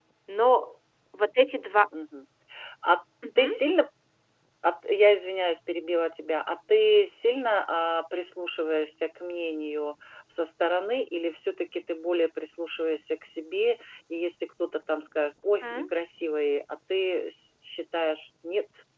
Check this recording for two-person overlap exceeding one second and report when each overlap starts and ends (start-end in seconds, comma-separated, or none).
none